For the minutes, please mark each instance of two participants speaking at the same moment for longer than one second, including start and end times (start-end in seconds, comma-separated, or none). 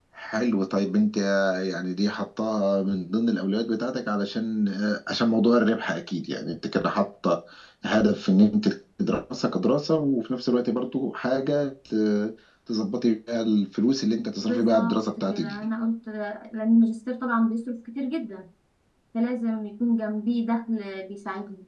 14.4-15.7